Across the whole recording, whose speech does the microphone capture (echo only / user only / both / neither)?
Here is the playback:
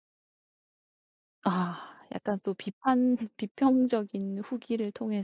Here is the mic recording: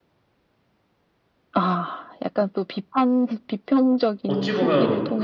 both